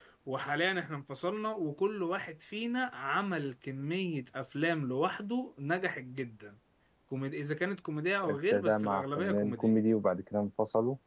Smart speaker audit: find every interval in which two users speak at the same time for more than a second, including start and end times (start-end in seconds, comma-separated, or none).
8.2-9.7